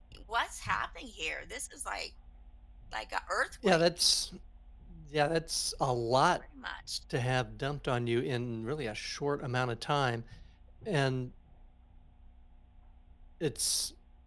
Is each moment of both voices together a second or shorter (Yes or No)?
Yes